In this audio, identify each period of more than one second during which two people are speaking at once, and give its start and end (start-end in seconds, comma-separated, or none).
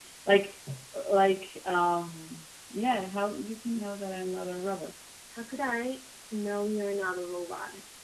none